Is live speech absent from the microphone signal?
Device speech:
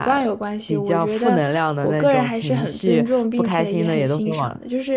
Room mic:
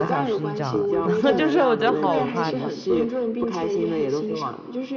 No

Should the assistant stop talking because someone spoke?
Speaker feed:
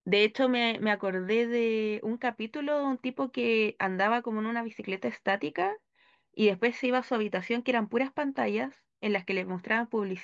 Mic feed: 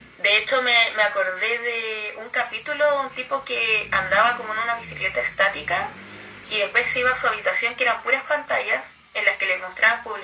No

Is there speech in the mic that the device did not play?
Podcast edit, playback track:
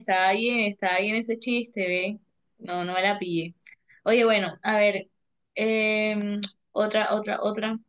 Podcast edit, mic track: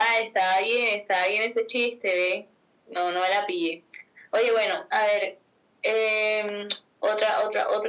No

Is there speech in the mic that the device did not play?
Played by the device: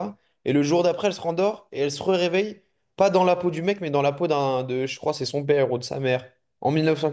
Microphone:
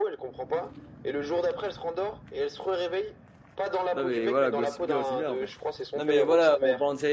Yes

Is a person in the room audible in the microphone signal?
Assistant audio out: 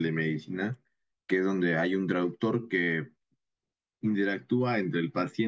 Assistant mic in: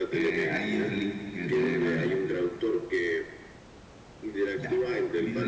Yes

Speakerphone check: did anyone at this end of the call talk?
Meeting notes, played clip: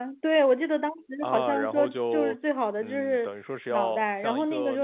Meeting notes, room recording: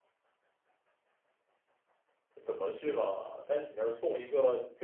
Yes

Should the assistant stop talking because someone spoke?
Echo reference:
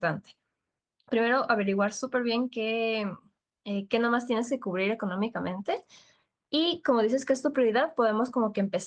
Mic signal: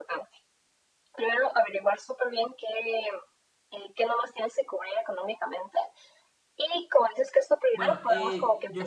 Yes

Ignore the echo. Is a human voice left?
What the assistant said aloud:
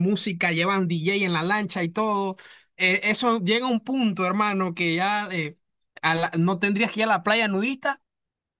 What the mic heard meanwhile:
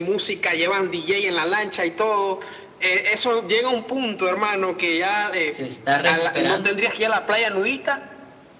Yes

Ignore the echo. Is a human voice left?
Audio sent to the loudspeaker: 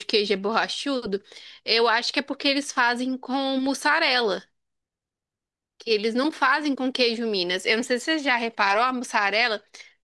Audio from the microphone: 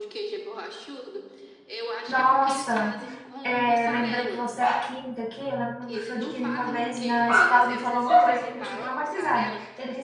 Yes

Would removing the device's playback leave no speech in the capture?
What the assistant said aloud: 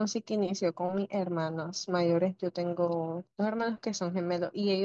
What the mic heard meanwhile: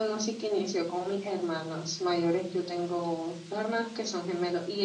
Yes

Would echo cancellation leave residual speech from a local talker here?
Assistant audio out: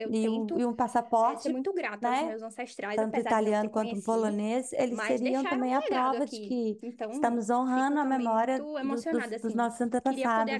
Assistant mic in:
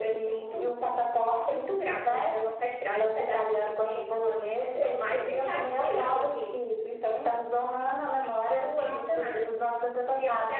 No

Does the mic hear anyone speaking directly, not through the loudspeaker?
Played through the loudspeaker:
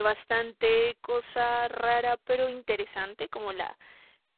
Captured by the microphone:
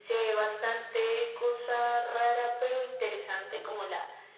No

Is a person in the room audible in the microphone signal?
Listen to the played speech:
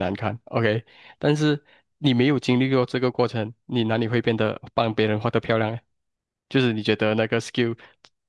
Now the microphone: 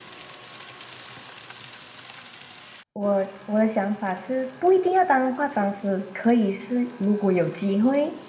Yes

